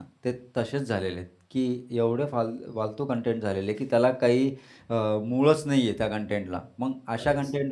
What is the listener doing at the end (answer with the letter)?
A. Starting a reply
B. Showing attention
B